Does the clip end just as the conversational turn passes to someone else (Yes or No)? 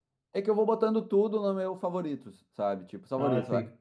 No